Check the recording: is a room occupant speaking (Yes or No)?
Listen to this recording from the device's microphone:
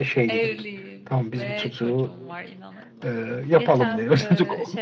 Yes